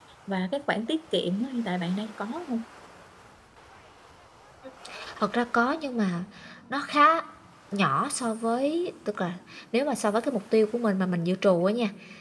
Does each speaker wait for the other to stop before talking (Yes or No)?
Yes